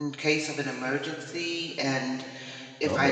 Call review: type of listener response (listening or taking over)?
listening